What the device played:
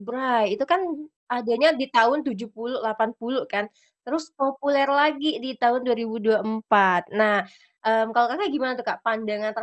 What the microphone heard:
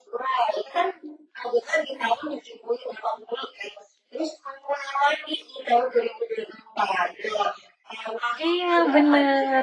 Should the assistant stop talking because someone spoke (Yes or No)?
Yes